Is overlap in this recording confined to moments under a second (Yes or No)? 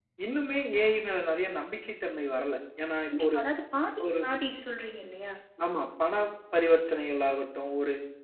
Yes